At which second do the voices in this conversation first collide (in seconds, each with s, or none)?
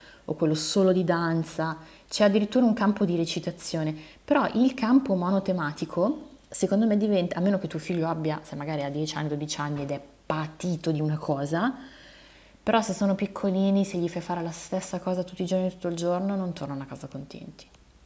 none